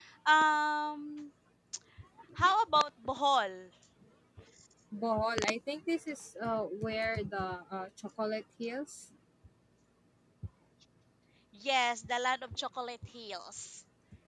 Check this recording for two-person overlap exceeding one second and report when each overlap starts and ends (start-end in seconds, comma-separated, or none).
none